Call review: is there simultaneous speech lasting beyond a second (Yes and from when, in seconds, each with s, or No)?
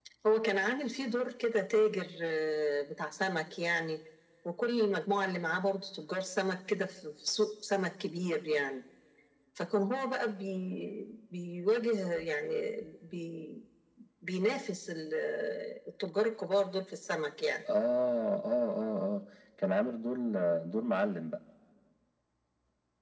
No